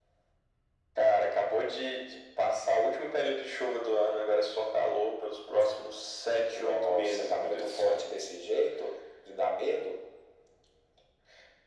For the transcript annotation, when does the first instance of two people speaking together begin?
6.5 s

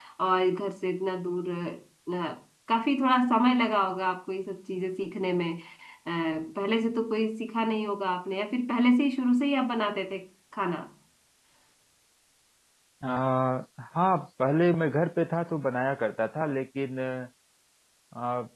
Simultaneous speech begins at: none

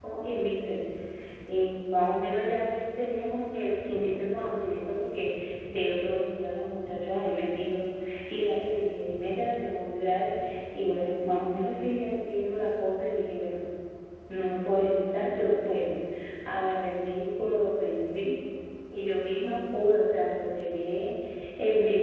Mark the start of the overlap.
none

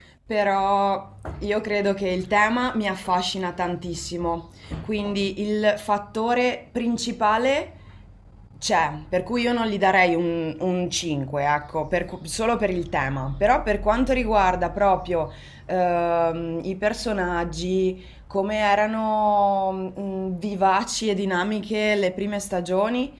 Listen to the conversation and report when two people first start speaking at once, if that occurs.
none

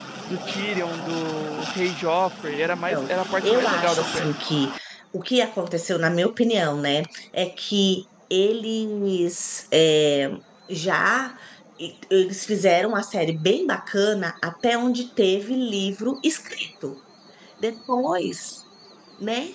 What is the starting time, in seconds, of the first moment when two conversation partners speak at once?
2.9 s

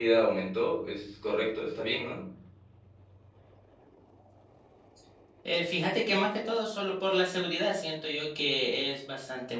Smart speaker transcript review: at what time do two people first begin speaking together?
none

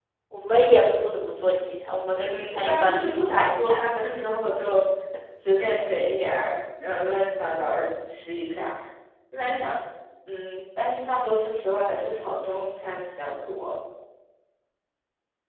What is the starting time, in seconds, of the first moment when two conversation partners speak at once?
2.1 s

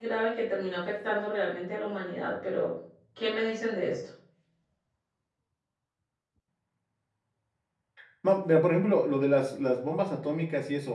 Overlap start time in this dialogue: none

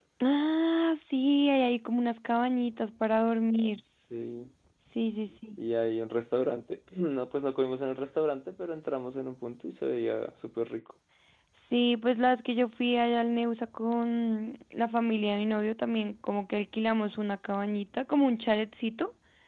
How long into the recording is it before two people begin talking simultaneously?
none

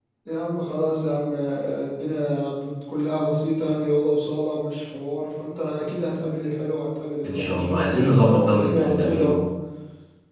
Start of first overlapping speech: 7.2 s

